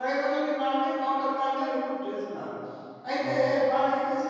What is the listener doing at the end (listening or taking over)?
listening